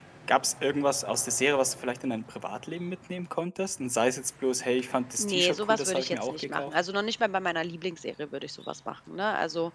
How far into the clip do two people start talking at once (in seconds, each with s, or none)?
5.2 s